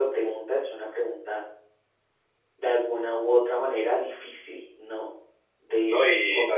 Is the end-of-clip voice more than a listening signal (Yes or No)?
Yes